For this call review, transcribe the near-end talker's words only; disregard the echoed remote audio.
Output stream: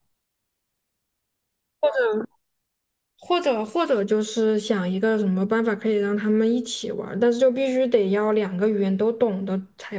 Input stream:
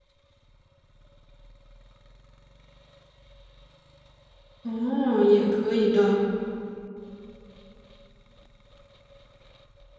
哦，也可以的。

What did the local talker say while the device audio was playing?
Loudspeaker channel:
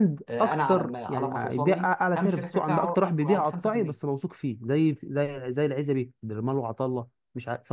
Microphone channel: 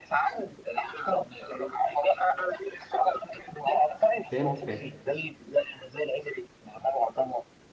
فهمت فهمت

